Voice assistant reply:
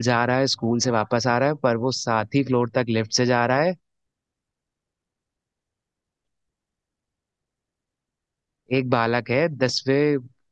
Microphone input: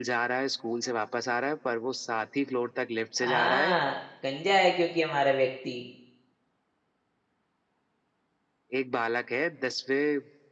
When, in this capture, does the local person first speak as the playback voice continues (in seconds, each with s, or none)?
3.2 s